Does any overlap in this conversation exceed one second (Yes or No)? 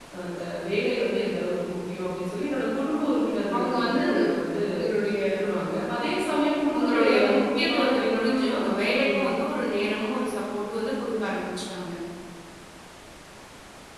Yes